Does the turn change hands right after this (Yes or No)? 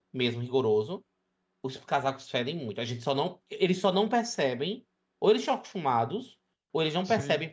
No